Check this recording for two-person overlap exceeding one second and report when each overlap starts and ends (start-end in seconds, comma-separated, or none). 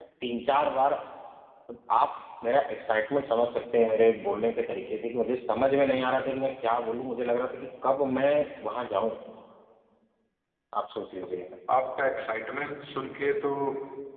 none